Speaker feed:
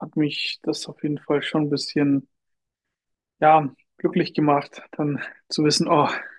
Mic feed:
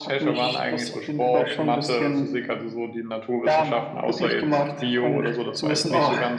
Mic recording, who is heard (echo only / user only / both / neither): both